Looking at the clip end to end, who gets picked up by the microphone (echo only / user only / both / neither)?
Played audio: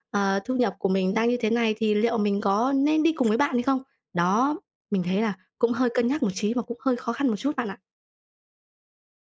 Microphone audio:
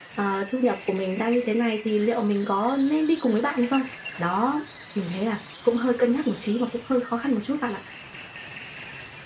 echo only